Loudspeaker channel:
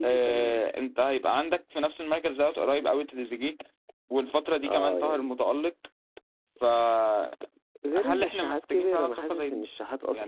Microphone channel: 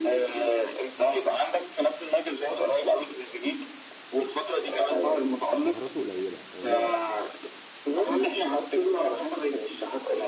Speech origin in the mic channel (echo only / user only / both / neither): both